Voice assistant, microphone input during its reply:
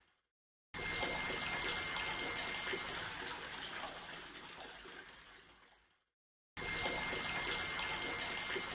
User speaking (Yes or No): No